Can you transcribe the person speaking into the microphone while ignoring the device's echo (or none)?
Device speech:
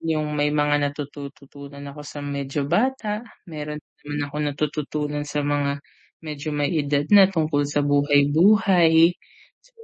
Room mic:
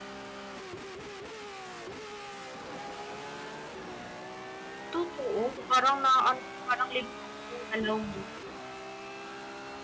Totoo, parang na ano, parang limitado yung galaw mo.